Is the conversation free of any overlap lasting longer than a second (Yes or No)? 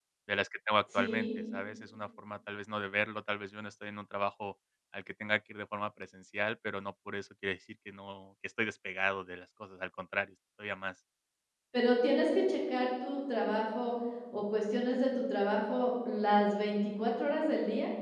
Yes